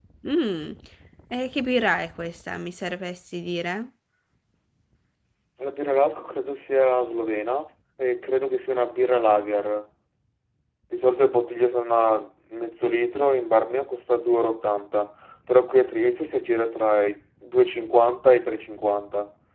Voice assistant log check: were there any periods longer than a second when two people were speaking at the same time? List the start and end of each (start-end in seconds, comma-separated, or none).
none